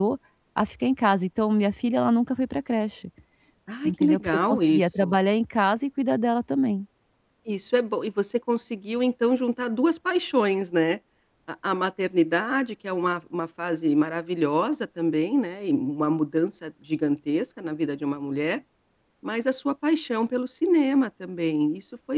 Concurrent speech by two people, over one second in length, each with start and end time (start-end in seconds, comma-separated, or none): 3.8-5.2